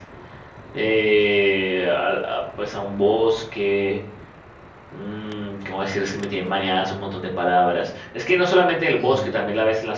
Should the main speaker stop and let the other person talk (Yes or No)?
No